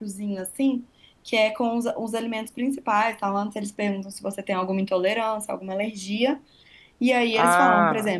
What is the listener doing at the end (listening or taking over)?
listening